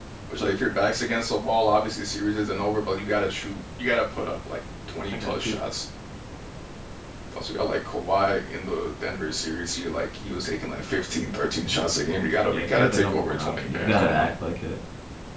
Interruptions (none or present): present